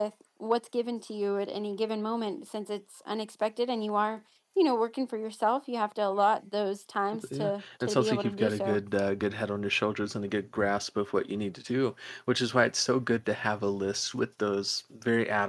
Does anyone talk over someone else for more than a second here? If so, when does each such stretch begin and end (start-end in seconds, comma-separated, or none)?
7.3-8.8